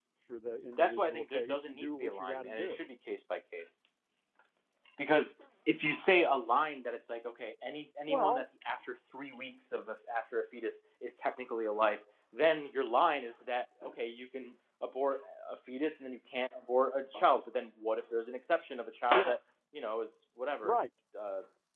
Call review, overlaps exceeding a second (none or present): present